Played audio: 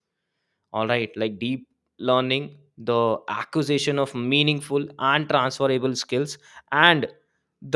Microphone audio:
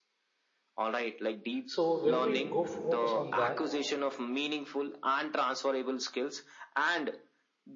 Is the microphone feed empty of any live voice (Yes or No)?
No